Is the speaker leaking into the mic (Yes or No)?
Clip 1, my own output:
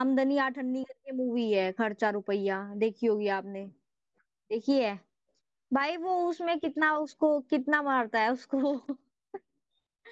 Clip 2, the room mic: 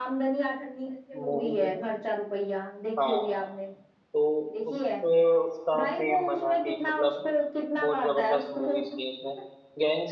Yes